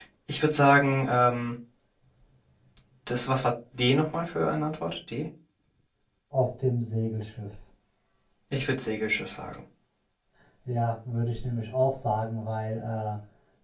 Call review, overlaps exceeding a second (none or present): none